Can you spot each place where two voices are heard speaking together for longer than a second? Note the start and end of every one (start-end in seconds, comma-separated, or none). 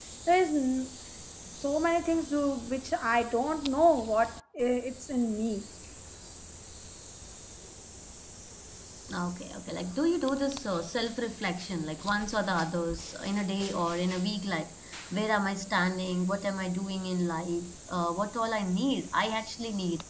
none